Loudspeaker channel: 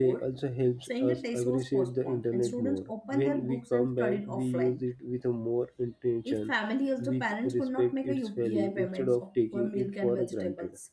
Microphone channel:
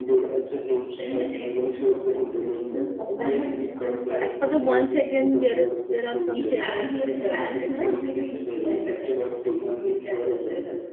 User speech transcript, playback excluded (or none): one uh, as per the one second there is there are some changes in the share market right